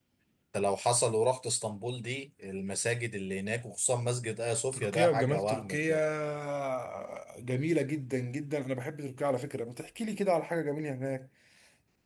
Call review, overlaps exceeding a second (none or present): present